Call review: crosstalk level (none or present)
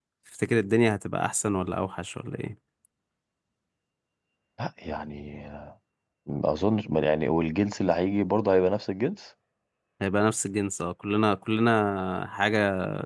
none